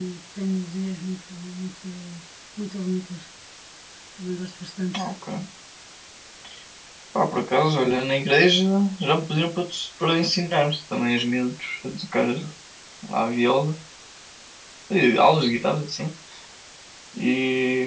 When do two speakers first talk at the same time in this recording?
none

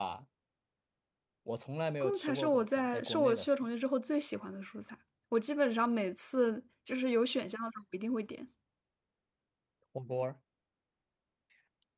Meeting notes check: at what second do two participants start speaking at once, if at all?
2.0 s

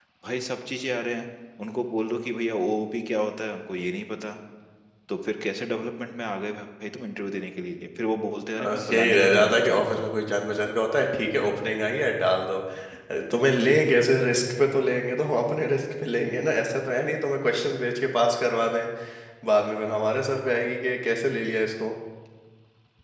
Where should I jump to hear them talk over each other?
8.6 s

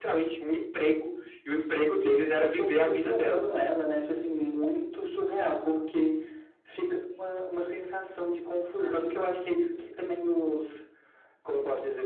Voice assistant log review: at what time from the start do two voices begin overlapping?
2.0 s

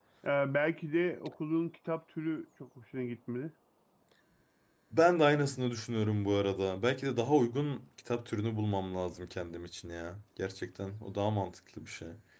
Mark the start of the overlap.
none

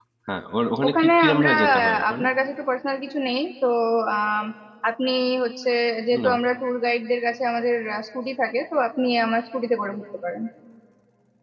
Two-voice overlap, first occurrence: 0.9 s

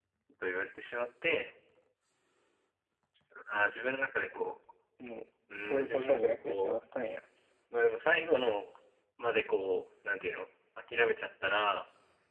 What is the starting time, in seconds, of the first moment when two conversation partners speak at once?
5.6 s

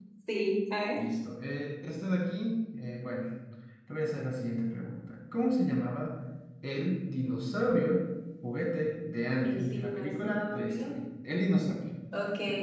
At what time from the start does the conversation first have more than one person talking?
9.4 s

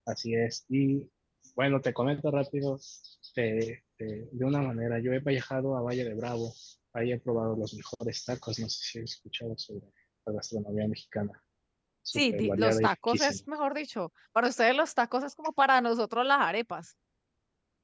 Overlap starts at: 12.1 s

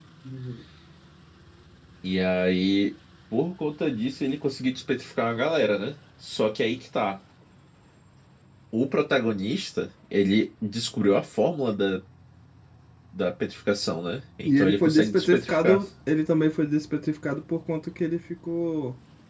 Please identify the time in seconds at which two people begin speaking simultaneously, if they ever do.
14.4 s

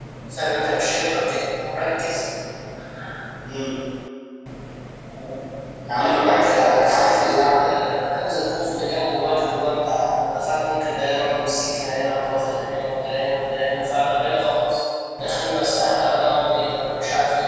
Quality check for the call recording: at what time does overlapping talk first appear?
5.9 s

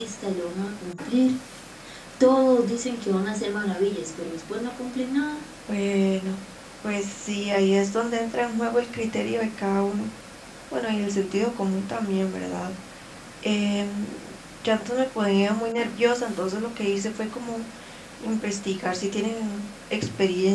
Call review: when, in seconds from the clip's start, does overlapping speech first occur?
none

